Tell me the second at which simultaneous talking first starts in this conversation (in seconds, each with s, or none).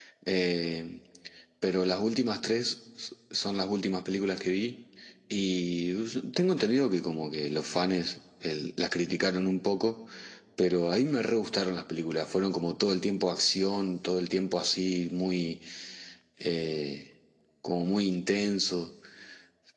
none